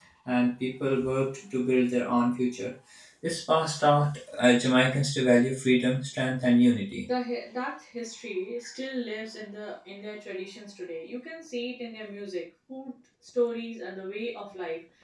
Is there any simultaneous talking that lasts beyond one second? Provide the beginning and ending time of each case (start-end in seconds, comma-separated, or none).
none